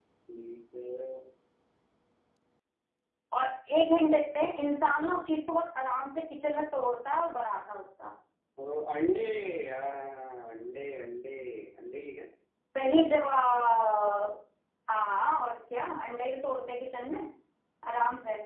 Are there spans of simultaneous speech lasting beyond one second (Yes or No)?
No